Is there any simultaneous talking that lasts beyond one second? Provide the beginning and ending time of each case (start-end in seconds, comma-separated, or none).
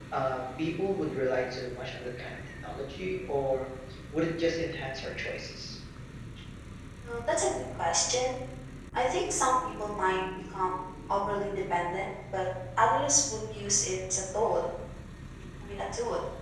none